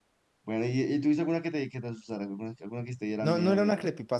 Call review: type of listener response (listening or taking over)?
taking over